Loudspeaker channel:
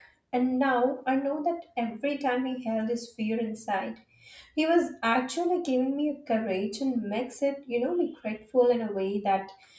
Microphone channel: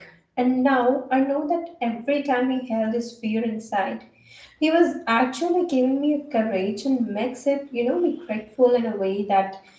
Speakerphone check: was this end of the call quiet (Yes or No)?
Yes